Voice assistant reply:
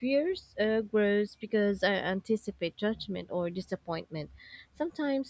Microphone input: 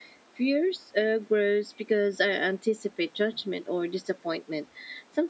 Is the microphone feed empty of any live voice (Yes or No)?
Yes